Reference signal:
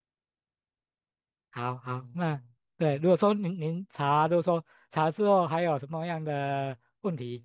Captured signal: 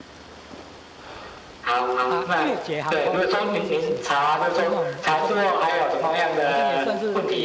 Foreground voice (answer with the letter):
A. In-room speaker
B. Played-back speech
B